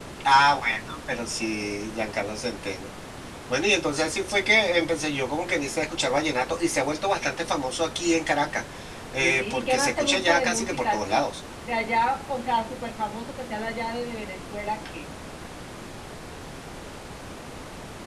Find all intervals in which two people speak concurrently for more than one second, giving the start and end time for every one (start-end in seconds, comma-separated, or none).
9.2-11.2